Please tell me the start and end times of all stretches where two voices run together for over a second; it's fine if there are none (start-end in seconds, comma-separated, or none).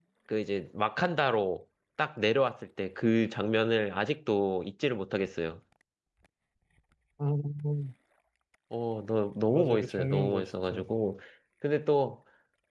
9.5-10.8